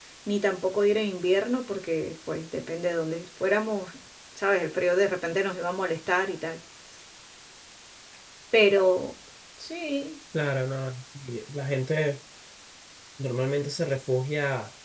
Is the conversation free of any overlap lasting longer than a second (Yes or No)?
Yes